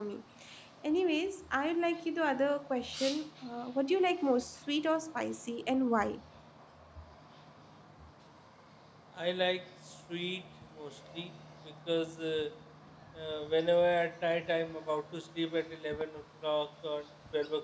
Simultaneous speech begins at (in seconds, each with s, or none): none